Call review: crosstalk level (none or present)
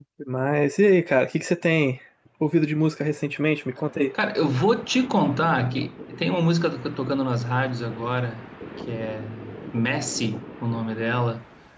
none